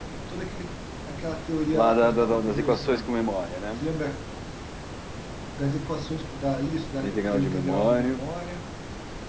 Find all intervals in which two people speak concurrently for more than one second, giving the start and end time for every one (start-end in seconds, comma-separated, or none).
1.7-3.1, 7.0-8.2